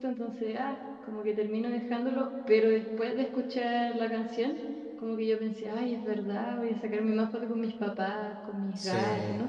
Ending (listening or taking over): taking over